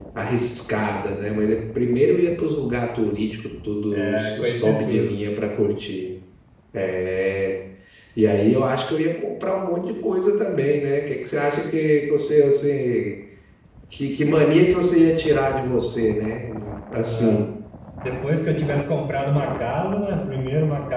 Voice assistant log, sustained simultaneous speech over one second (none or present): present